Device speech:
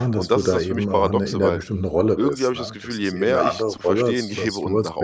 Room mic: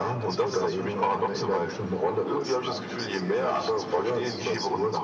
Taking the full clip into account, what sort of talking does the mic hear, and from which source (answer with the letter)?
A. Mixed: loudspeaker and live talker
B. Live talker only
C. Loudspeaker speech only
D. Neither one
C